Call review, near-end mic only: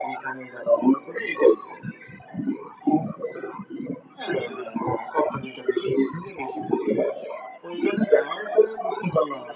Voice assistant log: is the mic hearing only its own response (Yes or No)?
Yes